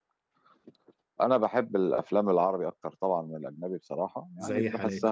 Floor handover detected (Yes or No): No